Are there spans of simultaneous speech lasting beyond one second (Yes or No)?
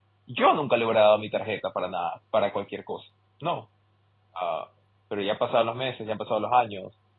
No